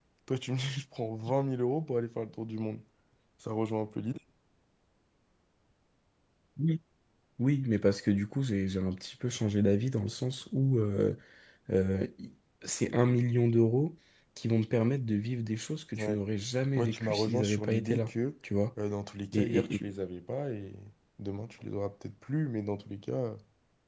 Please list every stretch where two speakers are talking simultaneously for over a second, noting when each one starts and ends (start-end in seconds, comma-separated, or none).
16.8-18.1